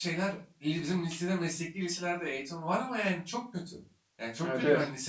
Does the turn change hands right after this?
No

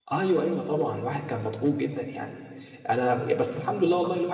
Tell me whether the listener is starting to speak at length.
No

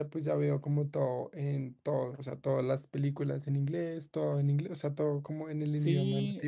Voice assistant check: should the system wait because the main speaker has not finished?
No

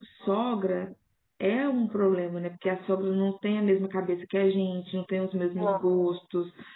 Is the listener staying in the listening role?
Yes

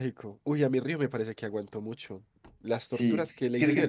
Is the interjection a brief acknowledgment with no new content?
No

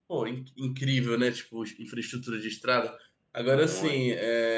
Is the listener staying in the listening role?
Yes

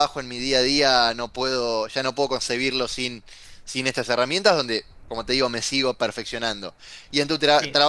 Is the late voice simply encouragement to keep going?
Yes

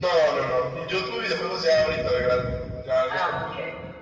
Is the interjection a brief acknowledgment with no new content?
Yes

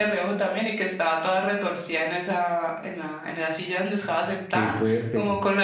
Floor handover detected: No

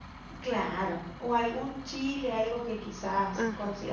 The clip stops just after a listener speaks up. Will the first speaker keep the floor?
Yes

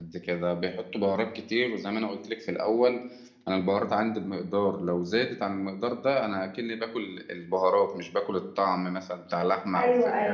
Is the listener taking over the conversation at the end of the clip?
Yes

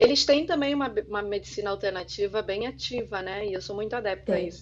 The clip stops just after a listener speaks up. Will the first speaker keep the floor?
Yes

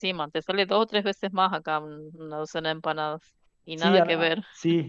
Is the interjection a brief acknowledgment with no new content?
No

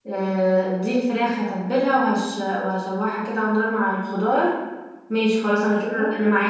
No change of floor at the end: Yes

